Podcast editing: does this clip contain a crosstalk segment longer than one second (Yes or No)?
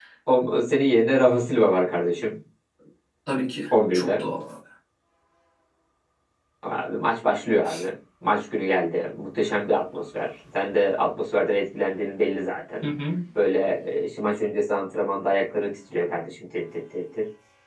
No